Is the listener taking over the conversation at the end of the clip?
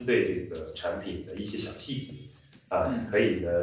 No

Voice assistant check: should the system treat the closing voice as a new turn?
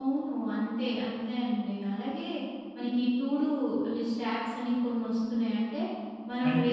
No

